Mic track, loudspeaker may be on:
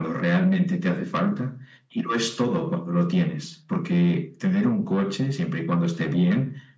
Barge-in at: none

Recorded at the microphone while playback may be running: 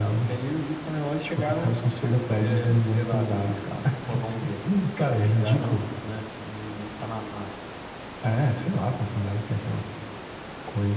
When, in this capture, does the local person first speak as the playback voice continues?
none

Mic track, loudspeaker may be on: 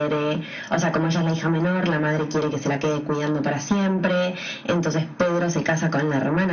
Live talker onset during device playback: none

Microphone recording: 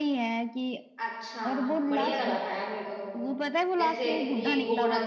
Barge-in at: 1.0 s

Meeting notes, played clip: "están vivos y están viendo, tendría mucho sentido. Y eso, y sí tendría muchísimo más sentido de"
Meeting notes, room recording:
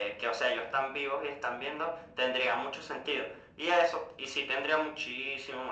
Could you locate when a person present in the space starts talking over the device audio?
none

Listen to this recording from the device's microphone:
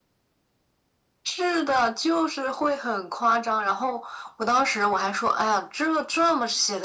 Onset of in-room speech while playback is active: none

